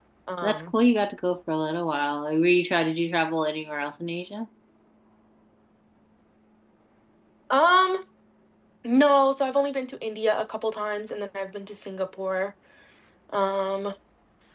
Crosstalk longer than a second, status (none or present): none